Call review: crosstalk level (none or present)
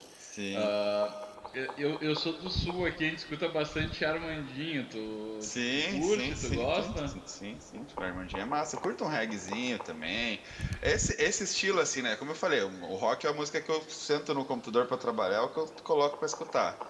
present